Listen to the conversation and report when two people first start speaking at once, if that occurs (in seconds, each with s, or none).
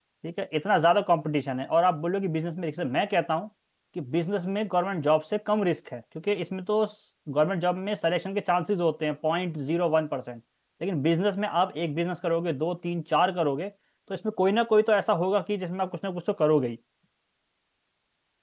none